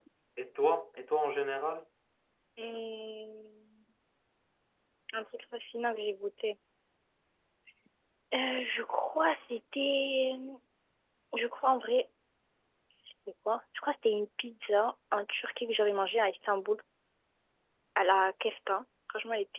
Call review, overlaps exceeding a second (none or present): none